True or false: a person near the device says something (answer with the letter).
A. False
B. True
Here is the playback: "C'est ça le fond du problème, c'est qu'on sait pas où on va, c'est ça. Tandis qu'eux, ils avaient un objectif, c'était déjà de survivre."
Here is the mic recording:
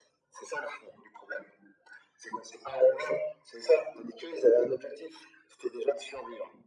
A